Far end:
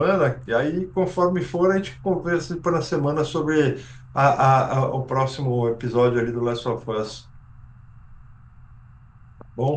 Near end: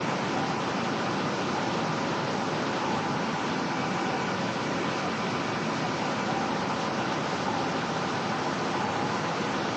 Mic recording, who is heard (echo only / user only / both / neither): neither